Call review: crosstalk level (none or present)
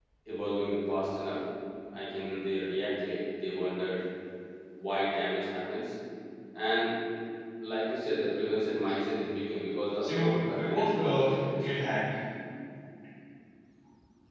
present